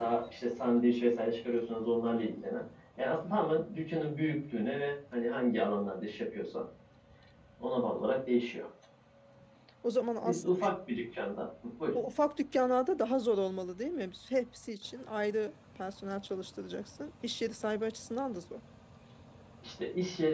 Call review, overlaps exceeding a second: none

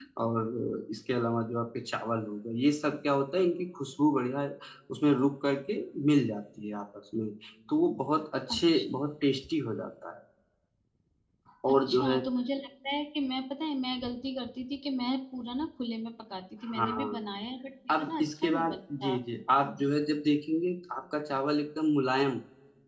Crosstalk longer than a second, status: present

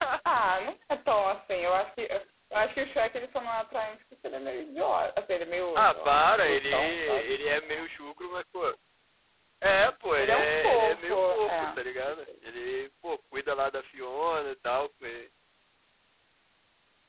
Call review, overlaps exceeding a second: present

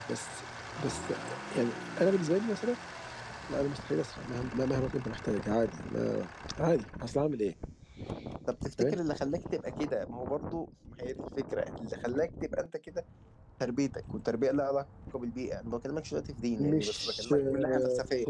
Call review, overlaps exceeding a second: present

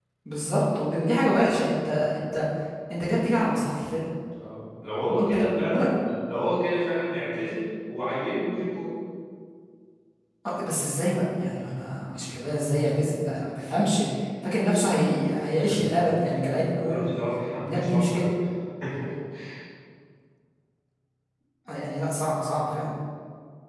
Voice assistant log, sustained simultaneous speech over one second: present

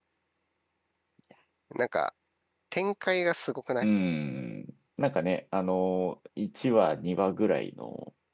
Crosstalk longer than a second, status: none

